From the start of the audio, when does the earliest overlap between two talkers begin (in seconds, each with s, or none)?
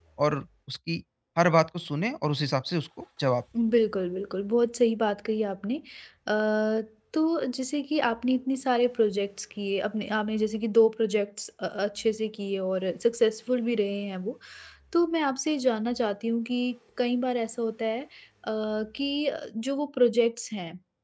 none